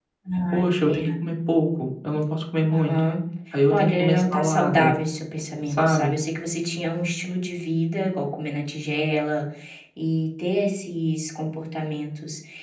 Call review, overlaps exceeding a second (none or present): present